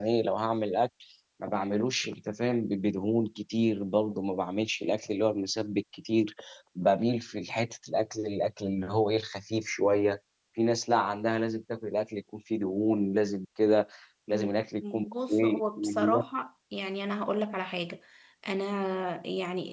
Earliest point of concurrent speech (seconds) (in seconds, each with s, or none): 14.3 s